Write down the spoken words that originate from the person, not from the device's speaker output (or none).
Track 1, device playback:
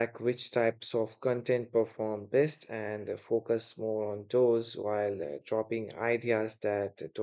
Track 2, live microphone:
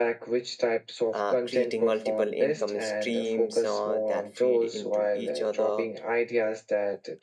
uh, creating multiple income streams uh, that feed into each other